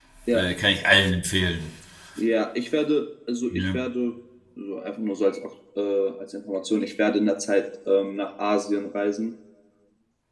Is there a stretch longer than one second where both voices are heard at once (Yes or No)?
No